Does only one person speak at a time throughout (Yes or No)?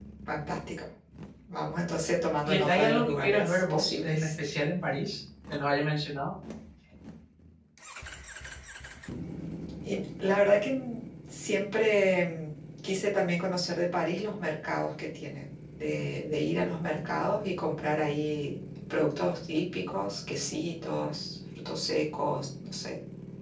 No